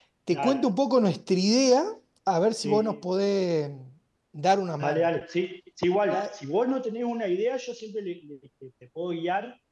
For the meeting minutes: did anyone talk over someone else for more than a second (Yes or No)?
No